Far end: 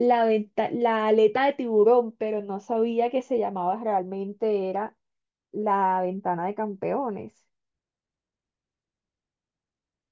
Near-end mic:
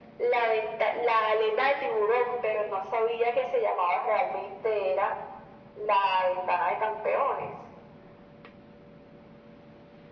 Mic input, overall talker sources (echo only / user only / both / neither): echo only